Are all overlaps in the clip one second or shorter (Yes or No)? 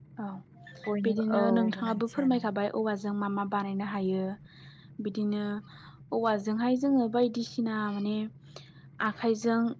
No